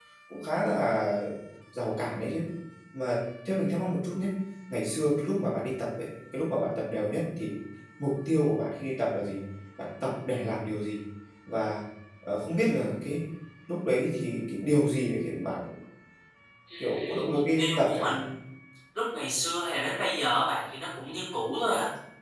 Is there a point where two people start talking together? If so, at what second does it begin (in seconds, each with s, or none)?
16.8 s